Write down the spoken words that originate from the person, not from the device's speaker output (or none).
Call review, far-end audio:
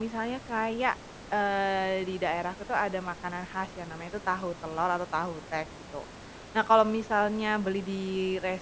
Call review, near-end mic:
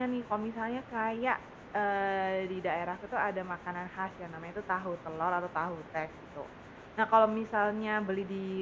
none